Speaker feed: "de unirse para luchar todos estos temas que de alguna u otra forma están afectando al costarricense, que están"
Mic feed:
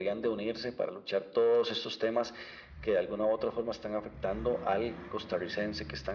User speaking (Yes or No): No